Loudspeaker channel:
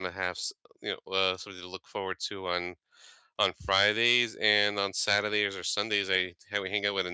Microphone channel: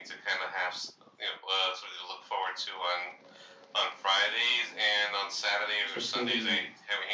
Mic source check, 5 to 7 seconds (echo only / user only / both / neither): both